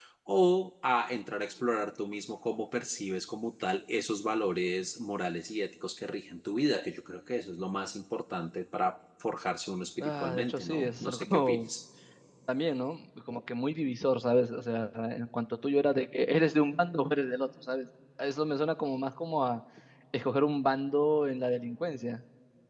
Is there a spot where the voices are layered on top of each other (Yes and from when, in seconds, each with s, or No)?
Yes, from 10.0 s